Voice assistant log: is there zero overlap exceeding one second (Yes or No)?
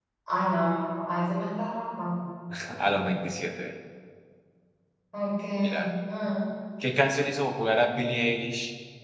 Yes